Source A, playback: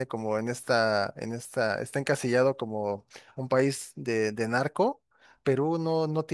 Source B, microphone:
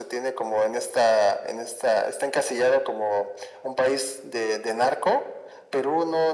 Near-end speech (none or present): none